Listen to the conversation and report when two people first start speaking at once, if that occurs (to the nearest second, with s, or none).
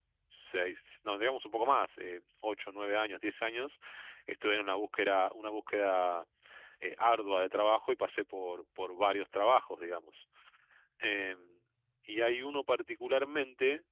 none